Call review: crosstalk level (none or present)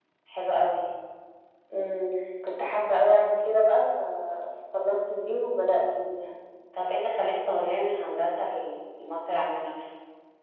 none